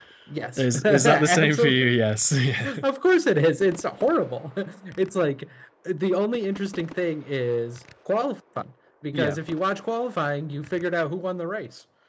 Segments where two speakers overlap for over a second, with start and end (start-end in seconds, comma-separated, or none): 0.6-1.9